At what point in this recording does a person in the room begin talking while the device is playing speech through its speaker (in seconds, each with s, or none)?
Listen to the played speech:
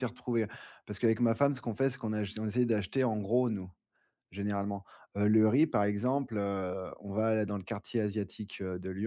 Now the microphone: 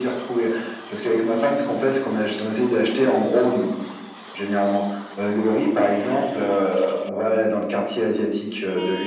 none